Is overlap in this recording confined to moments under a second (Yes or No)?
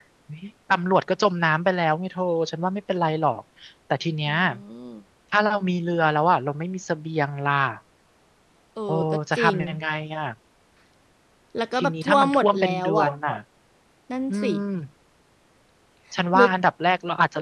No